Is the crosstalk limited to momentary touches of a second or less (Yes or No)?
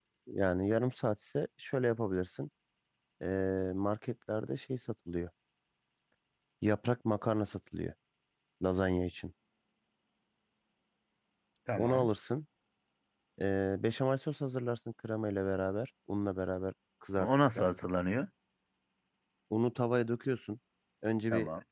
Yes